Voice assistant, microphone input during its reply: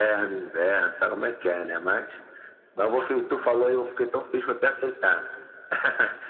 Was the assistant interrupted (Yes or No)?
No